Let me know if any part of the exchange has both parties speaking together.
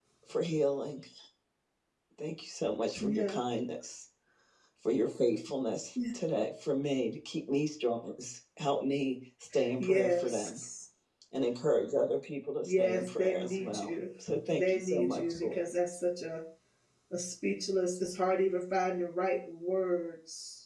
Yes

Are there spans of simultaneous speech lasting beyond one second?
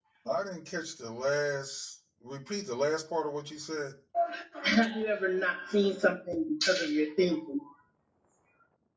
No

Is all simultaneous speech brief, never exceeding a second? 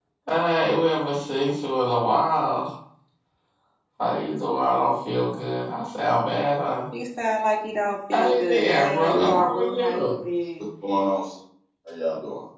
No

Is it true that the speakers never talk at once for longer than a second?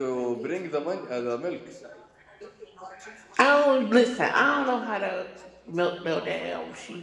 Yes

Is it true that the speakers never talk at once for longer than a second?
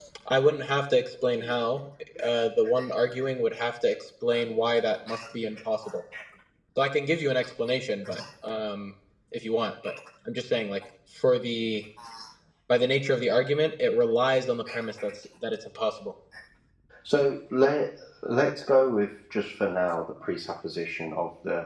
Yes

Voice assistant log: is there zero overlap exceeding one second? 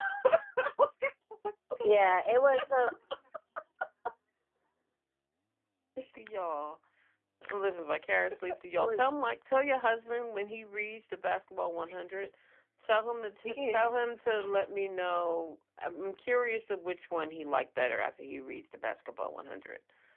Yes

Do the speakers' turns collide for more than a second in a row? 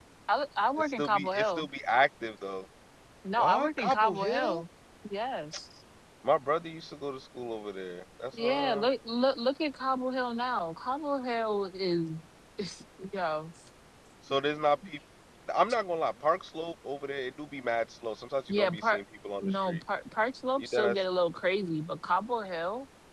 Yes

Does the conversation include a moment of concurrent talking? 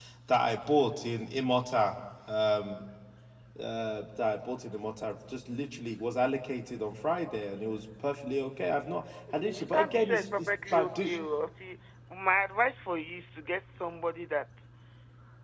Yes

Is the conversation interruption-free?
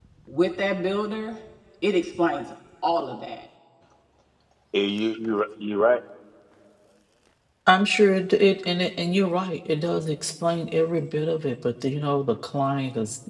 Yes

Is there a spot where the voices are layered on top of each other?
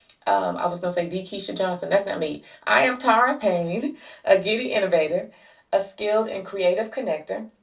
No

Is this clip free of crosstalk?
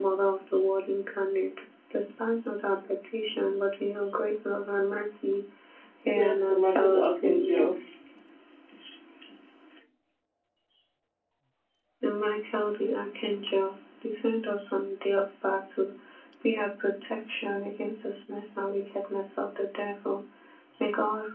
No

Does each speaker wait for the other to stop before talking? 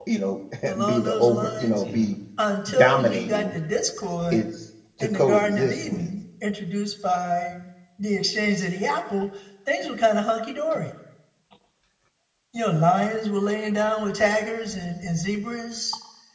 No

